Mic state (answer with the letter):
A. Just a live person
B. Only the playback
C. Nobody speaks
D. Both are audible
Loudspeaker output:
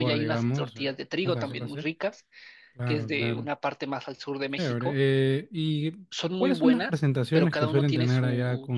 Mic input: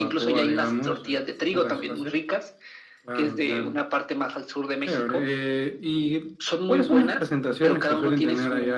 B